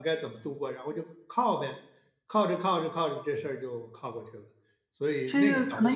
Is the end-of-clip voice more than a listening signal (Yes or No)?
Yes